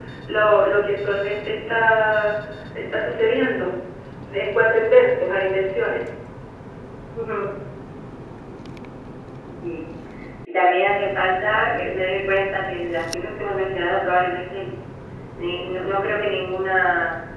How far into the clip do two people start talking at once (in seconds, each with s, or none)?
none